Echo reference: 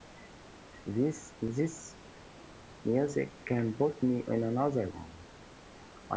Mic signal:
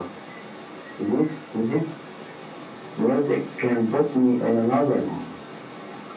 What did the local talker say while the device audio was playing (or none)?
none